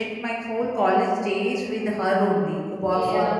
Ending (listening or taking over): listening